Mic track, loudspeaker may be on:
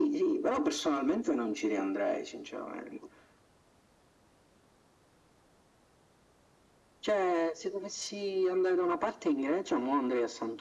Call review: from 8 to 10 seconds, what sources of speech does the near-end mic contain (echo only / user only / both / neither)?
echo only